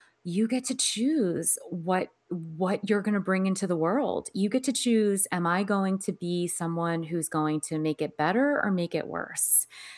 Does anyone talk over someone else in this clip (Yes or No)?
No